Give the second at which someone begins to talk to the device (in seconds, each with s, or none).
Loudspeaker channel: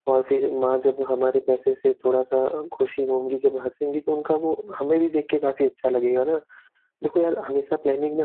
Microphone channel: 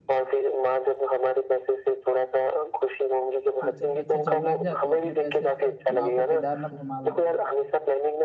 3.6 s